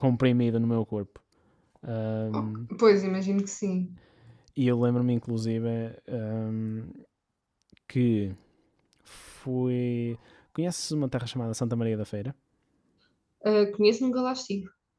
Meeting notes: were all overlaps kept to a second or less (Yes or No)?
Yes